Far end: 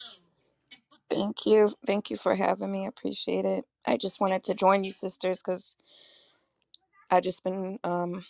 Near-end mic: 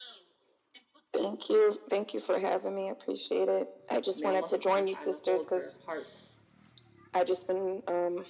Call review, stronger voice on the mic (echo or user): echo